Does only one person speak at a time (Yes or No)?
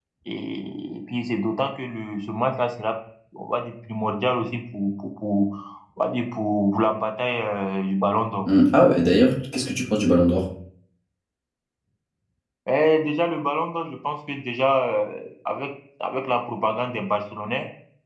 Yes